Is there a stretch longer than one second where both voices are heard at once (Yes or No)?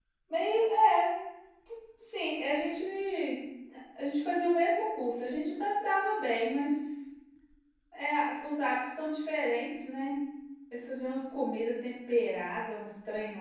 No